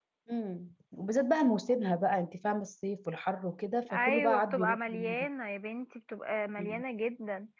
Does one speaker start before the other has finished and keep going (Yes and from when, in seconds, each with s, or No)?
Yes, from 3.9 s